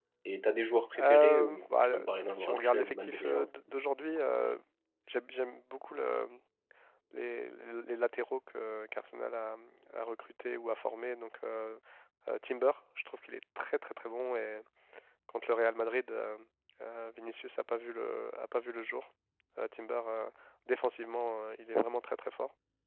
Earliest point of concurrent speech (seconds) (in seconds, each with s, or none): 0.9 s